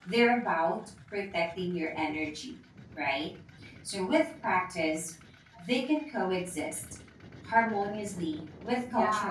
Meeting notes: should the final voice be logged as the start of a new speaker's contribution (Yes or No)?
Yes